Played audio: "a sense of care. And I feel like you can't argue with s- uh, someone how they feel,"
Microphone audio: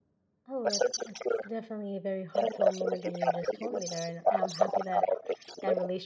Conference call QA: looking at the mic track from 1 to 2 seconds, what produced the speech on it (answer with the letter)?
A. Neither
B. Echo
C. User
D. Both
D